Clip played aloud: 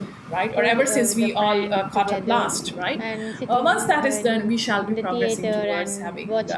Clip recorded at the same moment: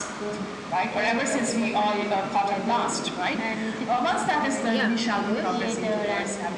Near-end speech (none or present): present